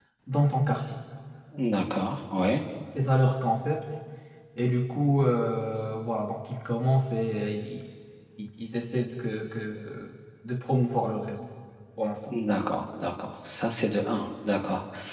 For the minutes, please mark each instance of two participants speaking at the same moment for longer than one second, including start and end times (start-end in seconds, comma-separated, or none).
none